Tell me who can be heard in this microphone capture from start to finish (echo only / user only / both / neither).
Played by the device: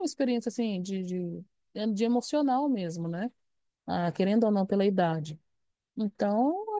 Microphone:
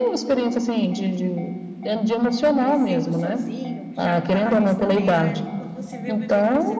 both